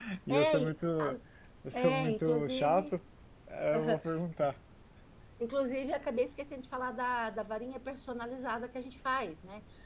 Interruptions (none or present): present